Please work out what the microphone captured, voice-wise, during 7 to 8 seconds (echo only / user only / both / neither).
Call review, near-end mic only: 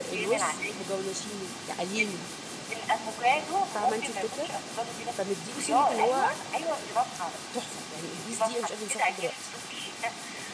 both